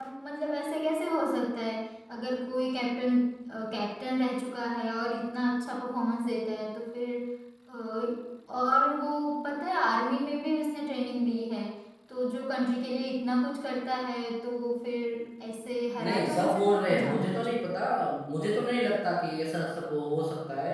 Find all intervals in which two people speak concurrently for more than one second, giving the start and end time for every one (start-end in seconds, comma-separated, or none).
16.0-17.7